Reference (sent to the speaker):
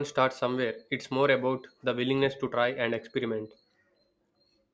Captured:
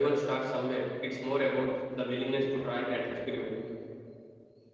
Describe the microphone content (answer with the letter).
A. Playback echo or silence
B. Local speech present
A